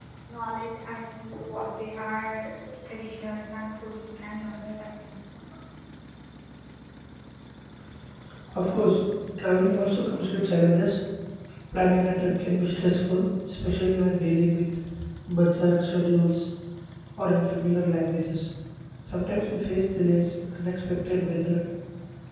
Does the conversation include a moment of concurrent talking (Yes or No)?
No